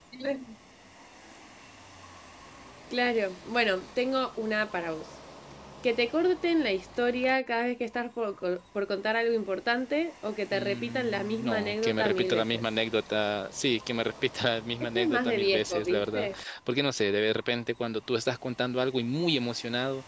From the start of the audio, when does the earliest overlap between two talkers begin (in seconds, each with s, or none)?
10.5 s